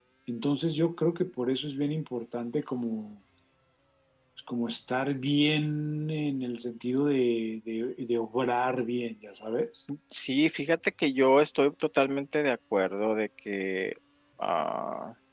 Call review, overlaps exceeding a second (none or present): none